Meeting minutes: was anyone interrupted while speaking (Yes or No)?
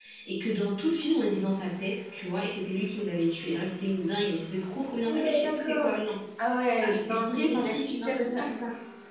Yes